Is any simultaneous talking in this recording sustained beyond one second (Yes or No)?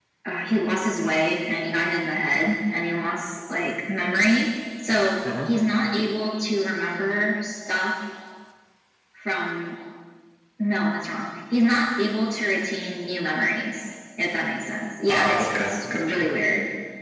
Yes